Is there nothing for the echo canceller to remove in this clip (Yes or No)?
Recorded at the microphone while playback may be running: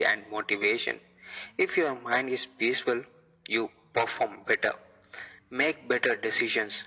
No